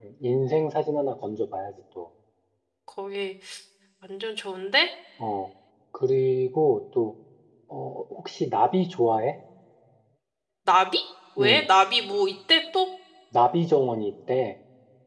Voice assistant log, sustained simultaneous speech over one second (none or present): none